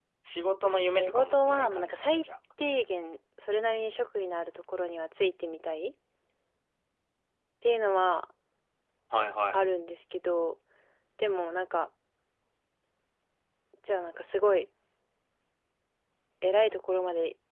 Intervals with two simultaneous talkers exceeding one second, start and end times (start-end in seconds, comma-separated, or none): 0.8-2.2